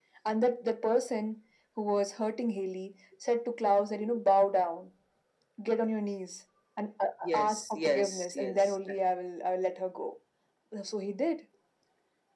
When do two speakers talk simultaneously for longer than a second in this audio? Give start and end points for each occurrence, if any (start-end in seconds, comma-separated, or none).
7.3-8.8